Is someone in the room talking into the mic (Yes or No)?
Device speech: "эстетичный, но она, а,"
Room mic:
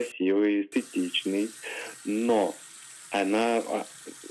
No